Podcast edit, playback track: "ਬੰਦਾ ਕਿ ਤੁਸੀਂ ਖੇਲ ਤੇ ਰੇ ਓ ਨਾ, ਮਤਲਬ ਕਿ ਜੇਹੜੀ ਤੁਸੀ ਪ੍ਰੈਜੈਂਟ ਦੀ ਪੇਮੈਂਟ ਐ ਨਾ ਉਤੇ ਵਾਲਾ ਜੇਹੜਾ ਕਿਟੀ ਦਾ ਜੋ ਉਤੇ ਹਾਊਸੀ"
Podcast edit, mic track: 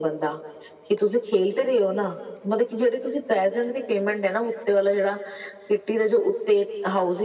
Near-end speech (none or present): none